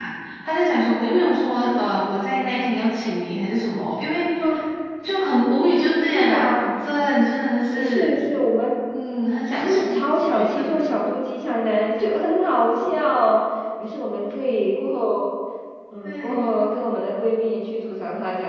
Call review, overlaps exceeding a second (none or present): present